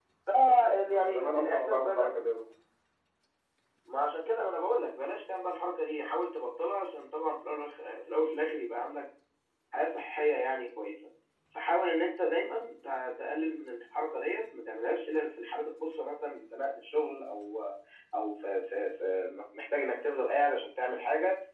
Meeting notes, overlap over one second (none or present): present